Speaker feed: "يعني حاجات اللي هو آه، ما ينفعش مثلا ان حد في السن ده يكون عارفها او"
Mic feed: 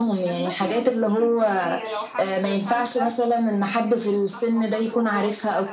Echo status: present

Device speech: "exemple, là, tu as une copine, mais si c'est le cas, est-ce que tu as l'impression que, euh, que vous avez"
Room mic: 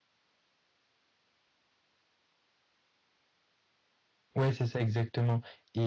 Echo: none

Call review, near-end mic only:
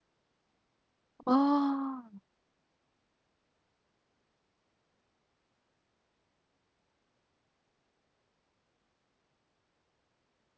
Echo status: none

